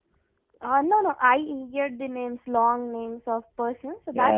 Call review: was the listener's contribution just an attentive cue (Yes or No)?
No